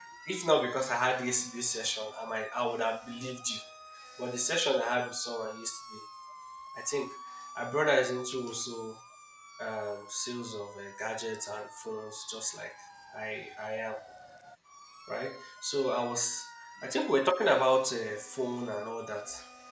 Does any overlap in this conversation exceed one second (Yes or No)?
No